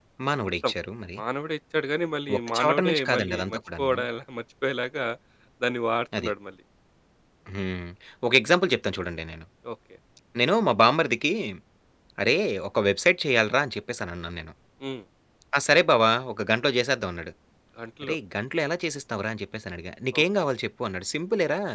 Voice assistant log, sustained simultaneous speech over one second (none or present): present